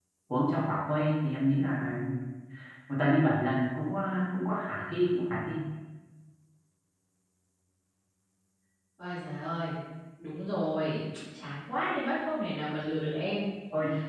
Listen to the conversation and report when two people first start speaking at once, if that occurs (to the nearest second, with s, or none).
none